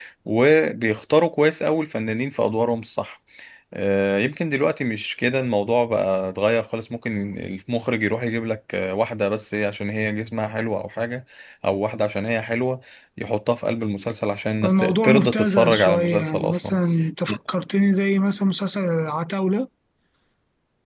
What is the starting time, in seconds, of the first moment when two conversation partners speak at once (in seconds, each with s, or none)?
14.6 s